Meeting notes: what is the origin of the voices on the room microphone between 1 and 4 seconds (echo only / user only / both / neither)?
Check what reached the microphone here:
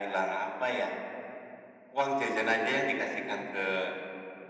echo only